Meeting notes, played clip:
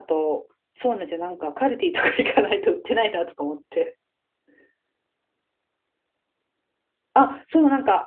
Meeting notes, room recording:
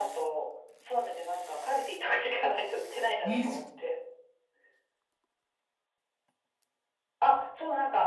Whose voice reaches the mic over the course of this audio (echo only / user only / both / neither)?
both